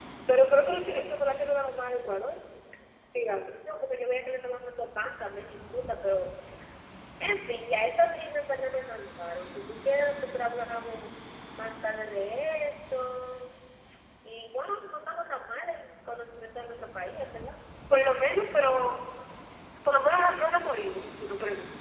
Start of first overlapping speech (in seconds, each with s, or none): none